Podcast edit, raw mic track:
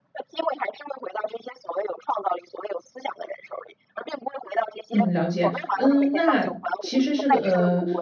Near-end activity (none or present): present